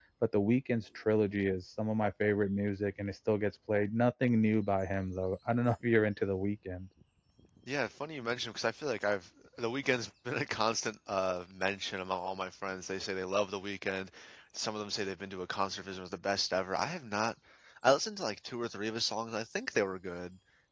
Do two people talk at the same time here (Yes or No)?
No